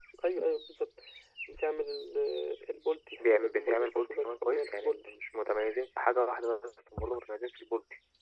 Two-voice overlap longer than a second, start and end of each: 3.3-5.1

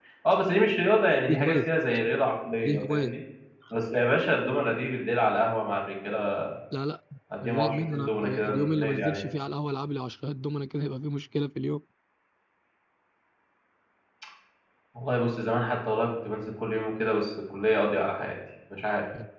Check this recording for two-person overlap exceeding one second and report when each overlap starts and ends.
7.4-9.2

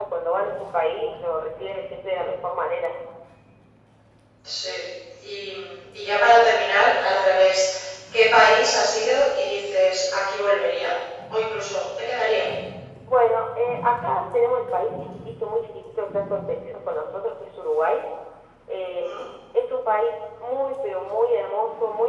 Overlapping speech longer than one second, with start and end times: none

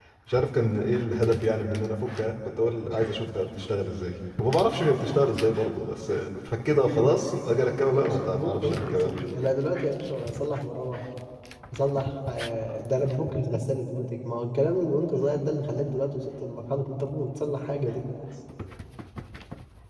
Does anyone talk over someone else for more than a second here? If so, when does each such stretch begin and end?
6.8-9.1

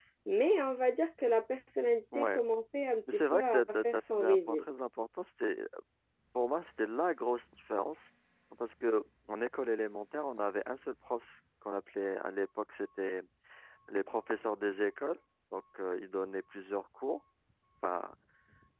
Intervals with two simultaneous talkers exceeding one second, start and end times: 3.1-4.6

